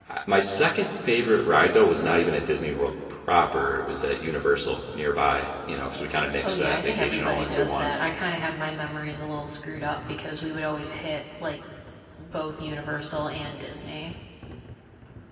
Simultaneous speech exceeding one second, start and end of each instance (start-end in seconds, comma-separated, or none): 6.4-7.9